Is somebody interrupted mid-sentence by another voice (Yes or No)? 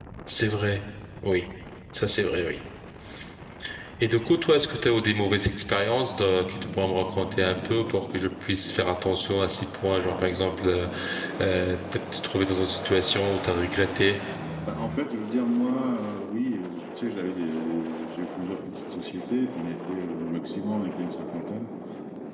No